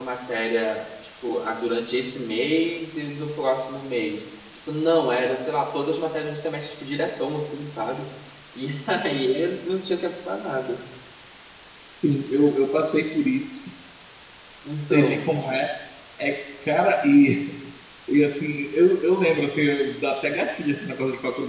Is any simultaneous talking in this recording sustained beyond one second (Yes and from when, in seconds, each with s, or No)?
No